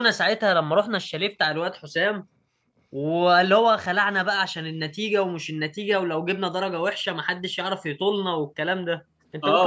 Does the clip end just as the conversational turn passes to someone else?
Yes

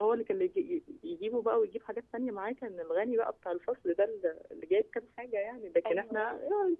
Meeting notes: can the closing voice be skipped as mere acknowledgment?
Yes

